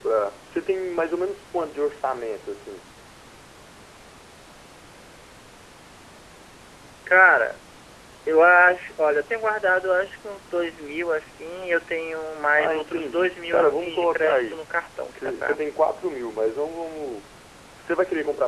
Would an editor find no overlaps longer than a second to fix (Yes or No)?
No